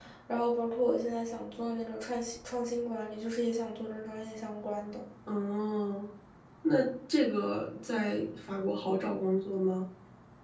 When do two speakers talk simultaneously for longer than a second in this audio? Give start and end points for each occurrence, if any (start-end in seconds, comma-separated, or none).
none